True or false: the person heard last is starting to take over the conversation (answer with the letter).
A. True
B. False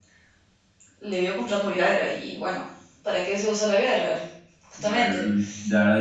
A